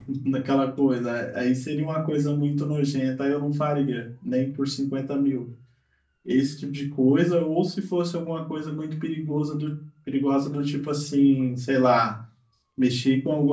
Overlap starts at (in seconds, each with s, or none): none